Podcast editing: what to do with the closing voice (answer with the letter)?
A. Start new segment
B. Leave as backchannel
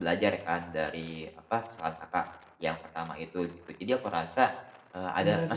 B